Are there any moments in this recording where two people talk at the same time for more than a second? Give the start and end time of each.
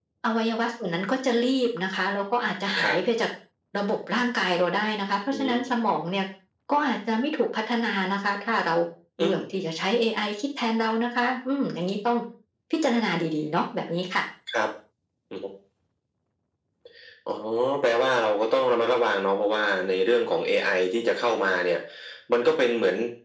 none

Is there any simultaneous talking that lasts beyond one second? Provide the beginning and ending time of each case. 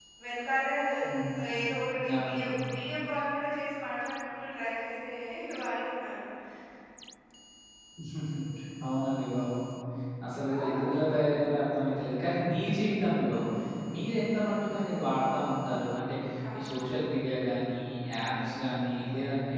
none

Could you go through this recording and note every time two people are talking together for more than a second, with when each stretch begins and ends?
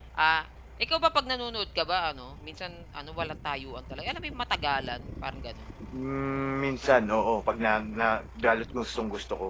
none

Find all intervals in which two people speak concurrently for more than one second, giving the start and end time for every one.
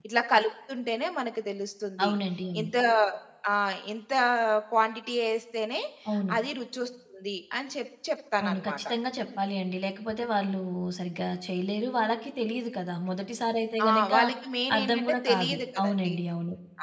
14.8-16.1

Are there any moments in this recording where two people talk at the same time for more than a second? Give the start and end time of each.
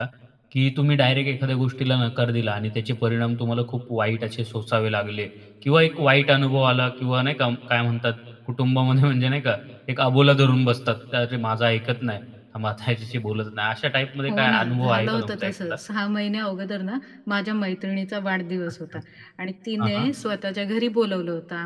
14.3-15.5

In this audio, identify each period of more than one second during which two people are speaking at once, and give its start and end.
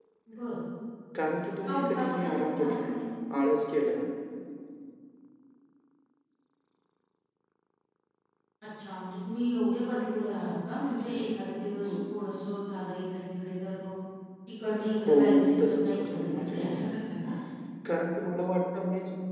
1.6-3.0, 15.0-17.0

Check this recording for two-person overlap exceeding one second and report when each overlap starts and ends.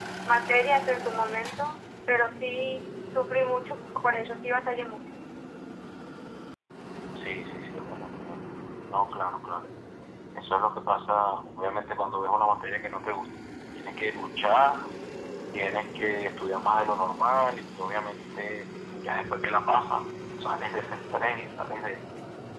none

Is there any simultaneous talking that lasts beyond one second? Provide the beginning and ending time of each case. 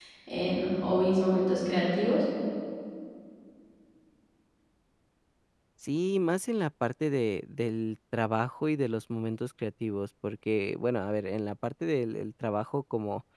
none

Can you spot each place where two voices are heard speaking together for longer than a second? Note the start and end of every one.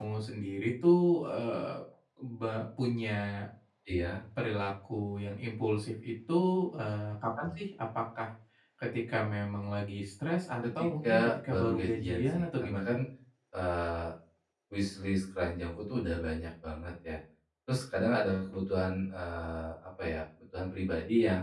10.8-12.9

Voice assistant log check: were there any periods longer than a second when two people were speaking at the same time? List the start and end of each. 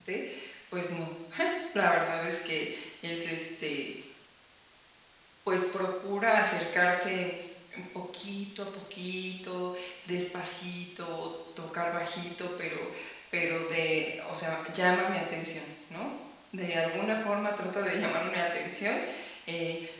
none

